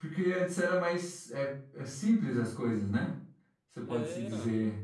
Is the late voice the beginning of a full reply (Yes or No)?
No